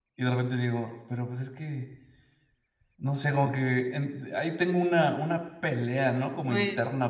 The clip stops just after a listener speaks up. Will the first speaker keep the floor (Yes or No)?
Yes